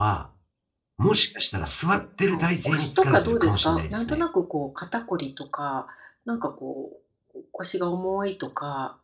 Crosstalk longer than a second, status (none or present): present